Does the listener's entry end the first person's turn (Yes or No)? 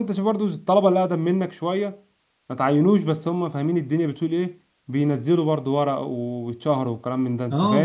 Yes